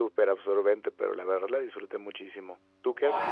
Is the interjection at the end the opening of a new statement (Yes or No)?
Yes